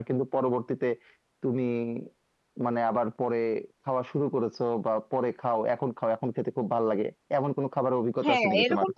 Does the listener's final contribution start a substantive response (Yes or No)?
Yes